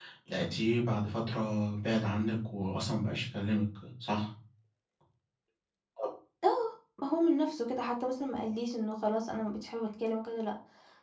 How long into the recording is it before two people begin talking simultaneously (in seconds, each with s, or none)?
none